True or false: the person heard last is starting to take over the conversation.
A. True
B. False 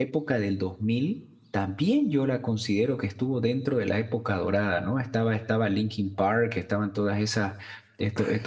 B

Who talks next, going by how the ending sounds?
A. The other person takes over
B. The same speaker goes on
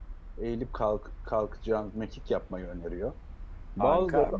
A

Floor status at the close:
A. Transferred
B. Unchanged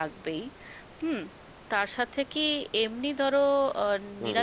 B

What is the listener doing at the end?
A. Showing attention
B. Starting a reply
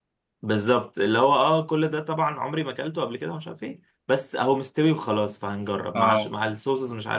A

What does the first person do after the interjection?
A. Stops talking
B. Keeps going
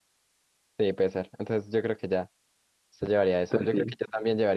B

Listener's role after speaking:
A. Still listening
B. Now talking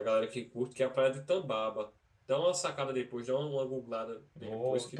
B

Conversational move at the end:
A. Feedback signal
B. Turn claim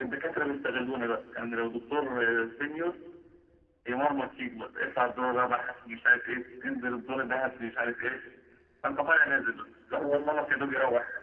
A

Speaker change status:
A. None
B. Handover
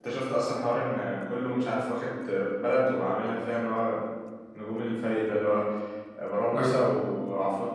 A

